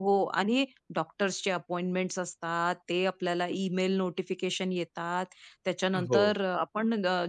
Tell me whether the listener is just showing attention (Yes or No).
Yes